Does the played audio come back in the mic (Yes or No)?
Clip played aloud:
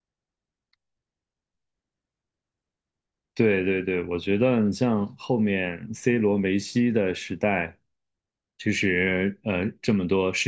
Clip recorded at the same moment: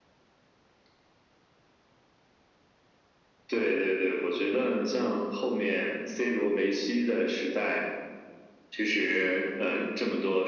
Yes